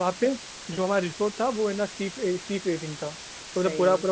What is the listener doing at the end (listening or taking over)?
listening